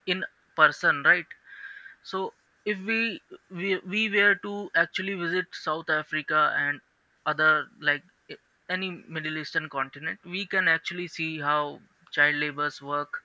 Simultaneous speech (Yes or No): No